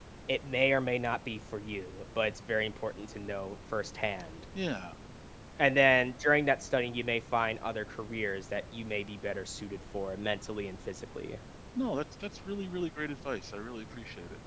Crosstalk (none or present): none